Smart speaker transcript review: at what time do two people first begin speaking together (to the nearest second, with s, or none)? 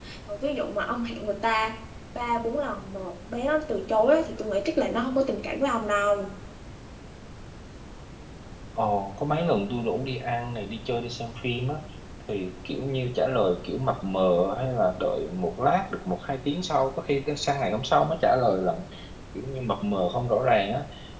none